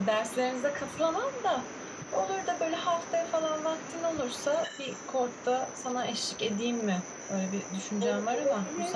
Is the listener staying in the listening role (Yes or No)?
No